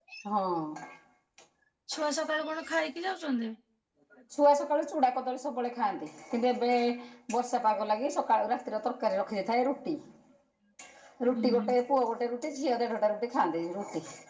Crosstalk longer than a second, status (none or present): none